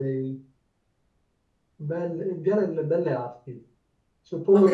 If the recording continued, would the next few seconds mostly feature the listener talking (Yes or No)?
Yes